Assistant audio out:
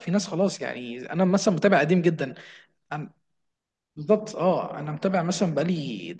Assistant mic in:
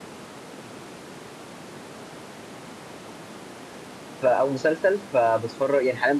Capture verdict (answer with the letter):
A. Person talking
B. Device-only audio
A